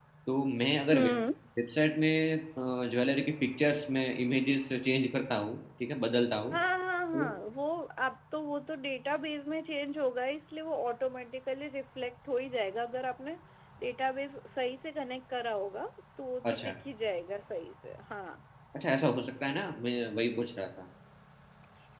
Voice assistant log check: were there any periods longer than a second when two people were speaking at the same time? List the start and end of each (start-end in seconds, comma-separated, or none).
none